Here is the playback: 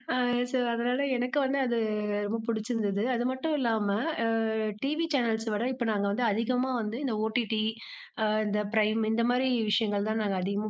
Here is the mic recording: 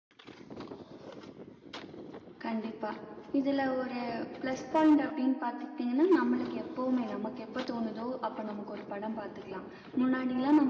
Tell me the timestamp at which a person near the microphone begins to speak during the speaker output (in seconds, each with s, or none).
2.4 s